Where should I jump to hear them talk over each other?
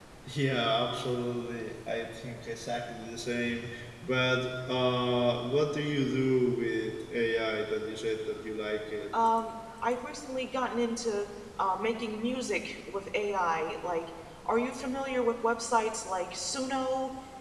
none

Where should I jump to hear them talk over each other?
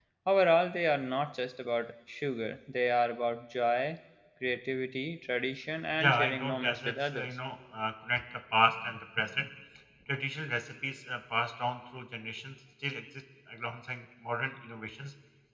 6.0 s

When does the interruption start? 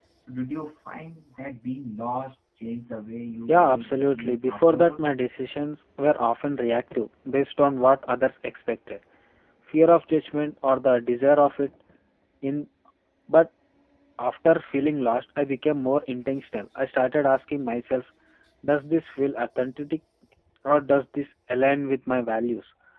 3.5 s

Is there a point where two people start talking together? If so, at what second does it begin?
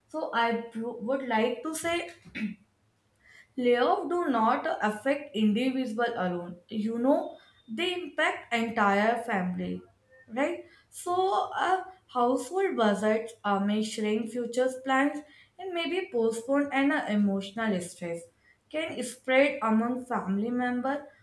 none

